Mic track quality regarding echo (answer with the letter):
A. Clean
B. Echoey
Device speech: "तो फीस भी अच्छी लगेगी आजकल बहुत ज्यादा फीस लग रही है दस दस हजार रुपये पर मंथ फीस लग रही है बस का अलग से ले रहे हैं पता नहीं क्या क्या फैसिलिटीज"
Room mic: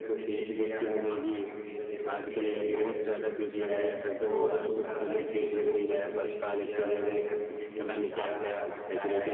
B